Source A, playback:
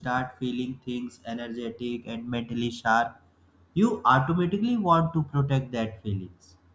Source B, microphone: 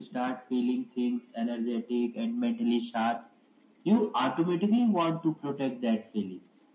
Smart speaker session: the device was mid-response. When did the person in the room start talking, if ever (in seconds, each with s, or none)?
none